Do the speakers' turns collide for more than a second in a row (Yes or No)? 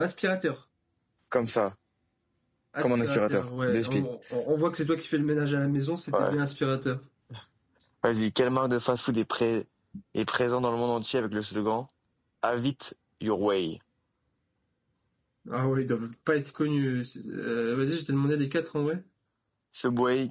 Yes